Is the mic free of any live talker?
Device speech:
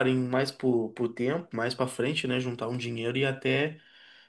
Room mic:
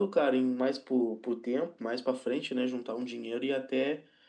Yes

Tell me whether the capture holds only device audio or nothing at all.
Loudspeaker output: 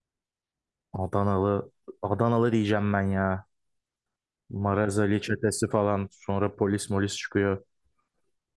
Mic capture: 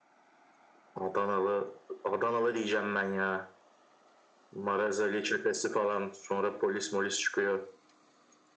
Yes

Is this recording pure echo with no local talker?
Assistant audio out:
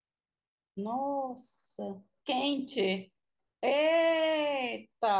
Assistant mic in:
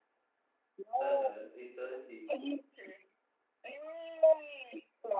No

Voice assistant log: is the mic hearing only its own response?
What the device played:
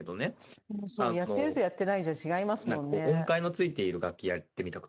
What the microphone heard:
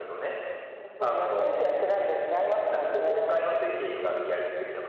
Yes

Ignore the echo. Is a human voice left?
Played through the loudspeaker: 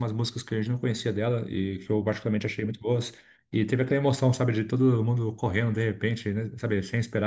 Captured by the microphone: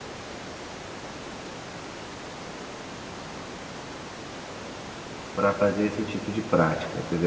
Yes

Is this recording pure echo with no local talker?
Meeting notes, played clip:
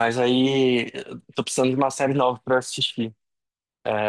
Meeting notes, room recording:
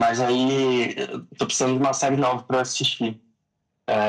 Yes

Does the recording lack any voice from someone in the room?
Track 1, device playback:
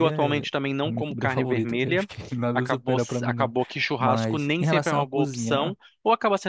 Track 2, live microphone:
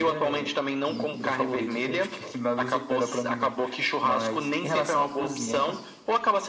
Yes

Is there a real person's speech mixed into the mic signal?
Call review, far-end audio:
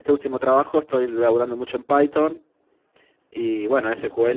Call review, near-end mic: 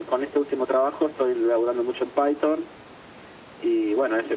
No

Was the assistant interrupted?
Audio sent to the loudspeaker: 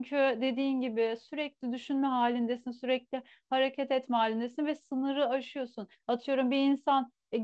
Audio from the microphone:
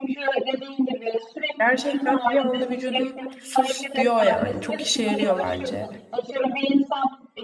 Yes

